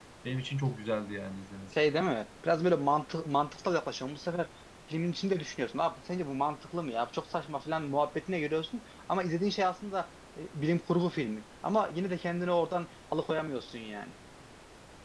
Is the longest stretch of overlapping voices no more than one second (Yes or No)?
Yes